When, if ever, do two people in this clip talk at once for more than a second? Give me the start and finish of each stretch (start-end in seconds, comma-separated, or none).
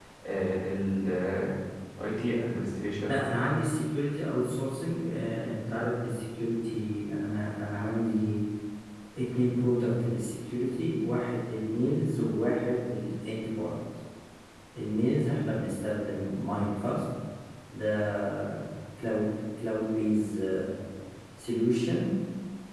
none